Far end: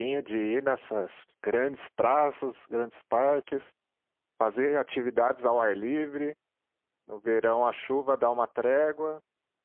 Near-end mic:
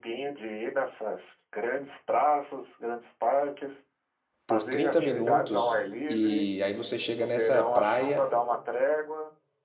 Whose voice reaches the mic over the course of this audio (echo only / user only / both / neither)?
both